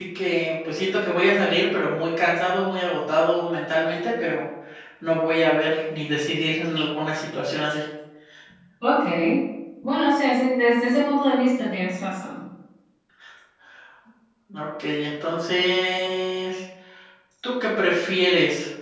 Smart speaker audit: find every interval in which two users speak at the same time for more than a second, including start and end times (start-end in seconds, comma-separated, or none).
none